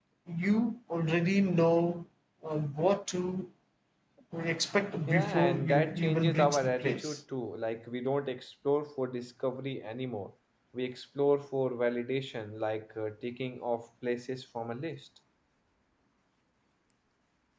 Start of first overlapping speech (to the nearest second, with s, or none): 5 s